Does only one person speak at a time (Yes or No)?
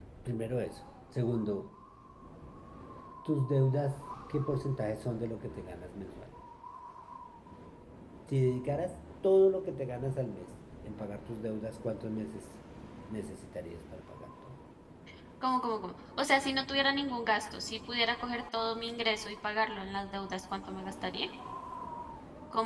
Yes